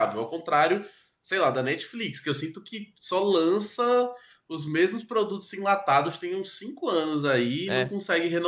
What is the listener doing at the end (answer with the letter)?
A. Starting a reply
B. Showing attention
B